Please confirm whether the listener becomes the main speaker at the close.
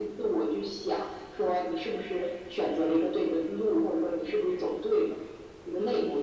Yes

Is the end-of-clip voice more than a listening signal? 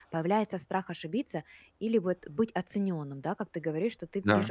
No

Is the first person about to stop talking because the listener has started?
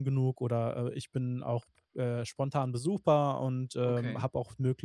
No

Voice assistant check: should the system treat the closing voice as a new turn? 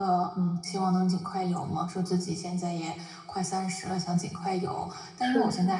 No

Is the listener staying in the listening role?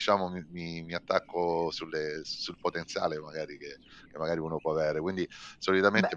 Yes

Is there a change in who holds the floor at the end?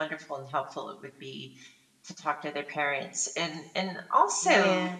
Yes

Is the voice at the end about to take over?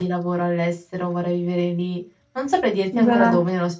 No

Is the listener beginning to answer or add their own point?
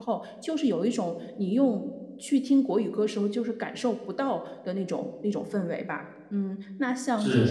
No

